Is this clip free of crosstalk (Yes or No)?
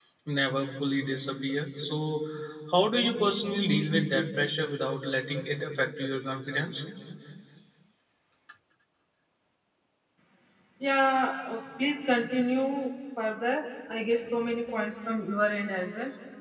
Yes